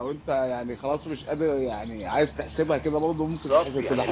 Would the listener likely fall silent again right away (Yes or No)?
No